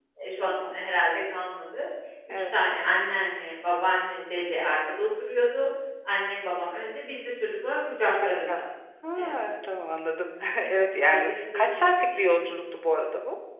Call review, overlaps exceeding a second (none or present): present